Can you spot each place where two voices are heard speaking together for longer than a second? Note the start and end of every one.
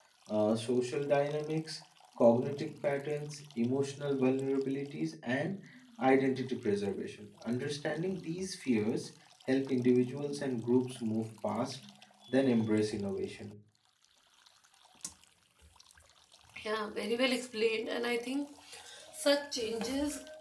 none

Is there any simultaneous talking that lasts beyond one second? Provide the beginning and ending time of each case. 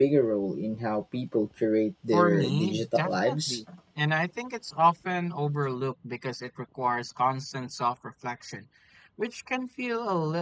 2.1-3.6

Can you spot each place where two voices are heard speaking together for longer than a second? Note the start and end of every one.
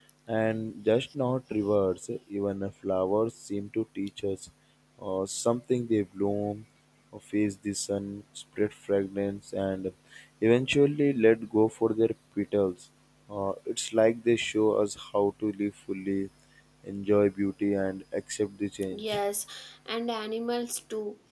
none

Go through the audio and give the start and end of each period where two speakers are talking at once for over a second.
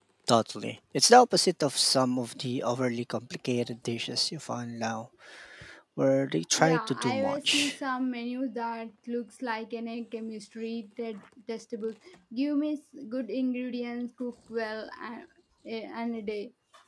6.5-7.8

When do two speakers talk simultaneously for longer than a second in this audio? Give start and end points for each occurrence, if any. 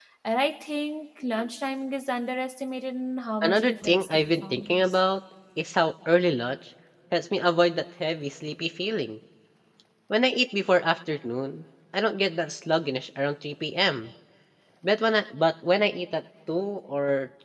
3.4-5.0

